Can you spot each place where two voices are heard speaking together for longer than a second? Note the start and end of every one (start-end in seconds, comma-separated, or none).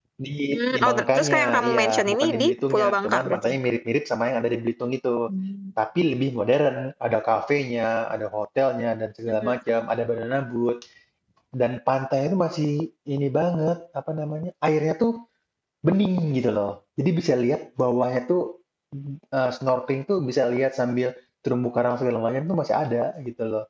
0.7-3.5